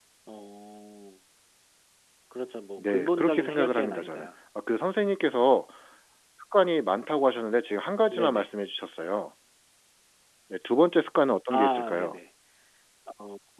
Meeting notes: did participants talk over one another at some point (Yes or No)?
Yes